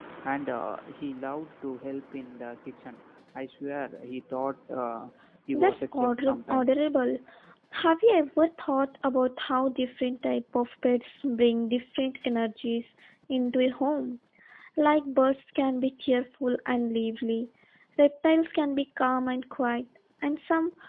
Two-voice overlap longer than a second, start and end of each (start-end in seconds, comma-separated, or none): 5.5-6.8